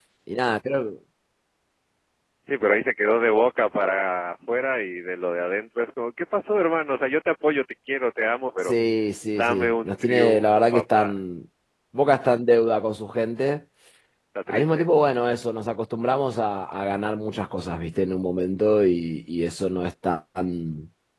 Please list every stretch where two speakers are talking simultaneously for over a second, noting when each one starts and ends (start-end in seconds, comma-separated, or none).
9.4-11.1